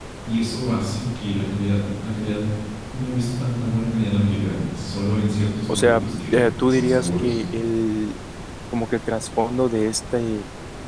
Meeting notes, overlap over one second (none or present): present